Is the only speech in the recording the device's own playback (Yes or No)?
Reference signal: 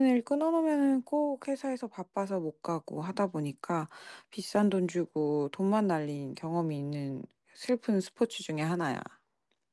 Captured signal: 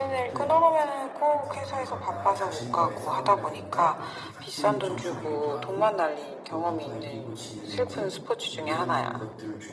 No